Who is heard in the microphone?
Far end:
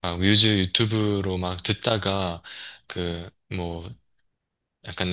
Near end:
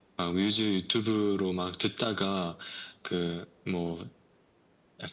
echo only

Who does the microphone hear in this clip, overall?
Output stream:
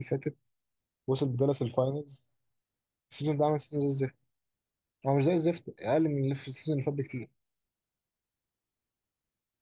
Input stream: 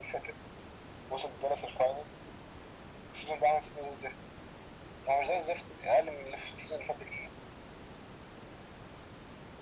echo only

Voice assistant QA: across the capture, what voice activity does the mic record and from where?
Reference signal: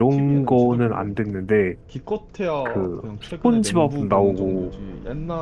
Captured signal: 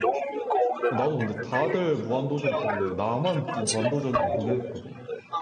both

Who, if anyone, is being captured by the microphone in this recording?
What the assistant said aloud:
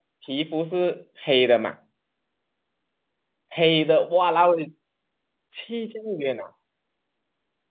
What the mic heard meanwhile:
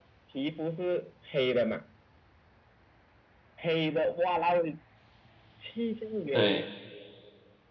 both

